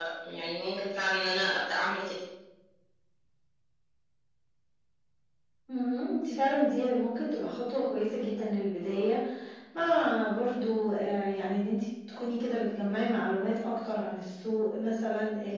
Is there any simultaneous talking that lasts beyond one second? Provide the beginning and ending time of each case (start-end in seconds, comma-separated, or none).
none